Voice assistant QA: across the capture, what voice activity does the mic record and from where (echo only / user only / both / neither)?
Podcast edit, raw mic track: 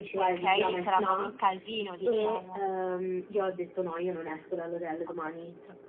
both